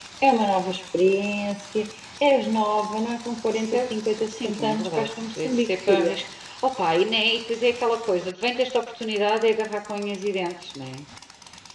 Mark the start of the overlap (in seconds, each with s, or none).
3.5 s